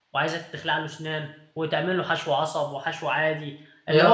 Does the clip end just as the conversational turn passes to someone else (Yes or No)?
No